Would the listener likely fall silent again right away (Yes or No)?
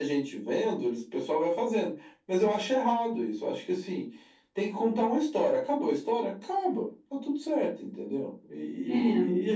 Yes